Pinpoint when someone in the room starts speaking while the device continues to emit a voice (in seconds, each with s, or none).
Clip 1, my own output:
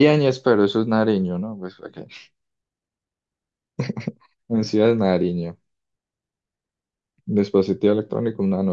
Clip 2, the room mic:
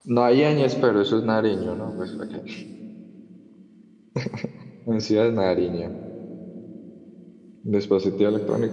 none